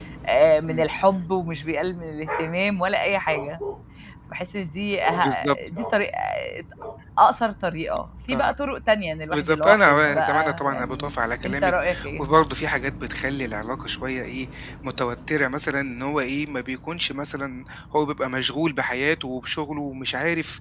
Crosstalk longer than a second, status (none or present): present